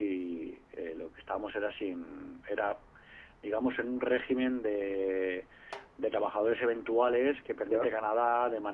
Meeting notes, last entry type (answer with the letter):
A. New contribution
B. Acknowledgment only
B